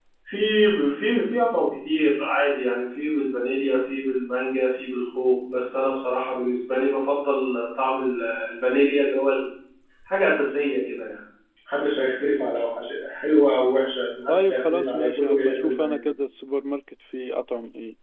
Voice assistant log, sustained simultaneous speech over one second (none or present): present